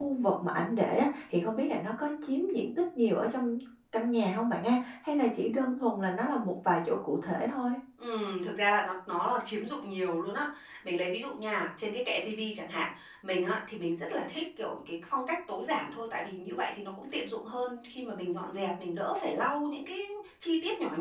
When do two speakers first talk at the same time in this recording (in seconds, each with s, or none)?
none